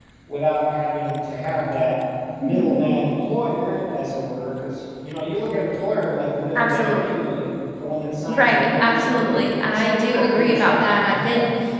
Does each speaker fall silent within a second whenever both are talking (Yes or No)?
No